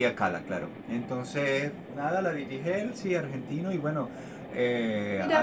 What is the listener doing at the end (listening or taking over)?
listening